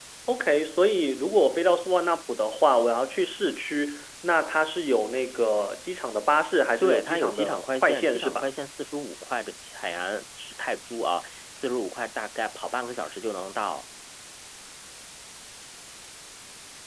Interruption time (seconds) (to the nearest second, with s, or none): 7 s